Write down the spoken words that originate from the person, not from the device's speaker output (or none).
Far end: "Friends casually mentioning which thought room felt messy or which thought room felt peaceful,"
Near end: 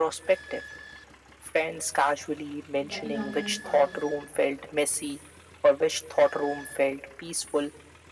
the inorganized part of